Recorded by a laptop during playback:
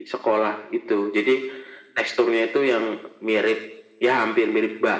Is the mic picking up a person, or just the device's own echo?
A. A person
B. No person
B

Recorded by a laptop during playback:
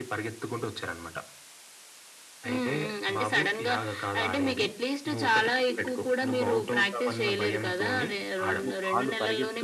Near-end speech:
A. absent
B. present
B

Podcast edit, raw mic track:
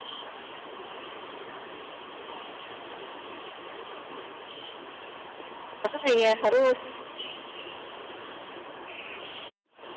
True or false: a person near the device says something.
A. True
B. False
A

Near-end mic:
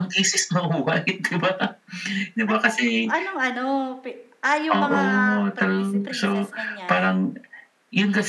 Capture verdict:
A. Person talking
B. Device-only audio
A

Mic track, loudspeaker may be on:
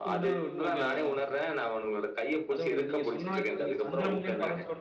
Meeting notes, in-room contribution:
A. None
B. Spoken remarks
B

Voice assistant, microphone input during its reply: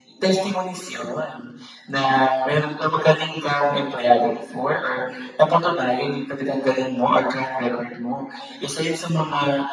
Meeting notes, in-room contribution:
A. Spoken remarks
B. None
B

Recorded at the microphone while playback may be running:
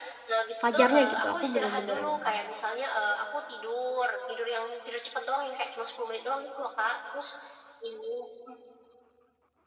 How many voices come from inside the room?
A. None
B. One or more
B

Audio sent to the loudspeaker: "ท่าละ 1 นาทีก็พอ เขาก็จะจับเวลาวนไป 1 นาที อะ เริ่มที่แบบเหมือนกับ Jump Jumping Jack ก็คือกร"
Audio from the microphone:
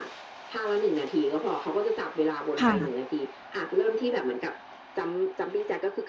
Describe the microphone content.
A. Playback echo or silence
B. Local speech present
B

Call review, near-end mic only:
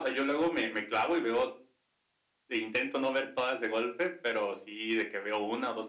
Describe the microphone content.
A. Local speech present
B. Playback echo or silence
B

